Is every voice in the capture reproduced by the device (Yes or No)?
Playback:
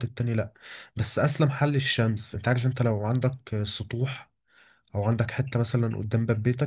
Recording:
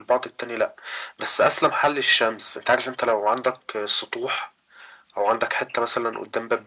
Yes